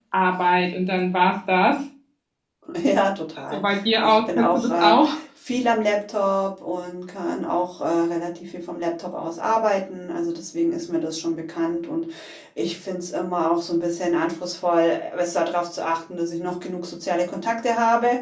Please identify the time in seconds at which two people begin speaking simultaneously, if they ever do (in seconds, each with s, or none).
3.4 s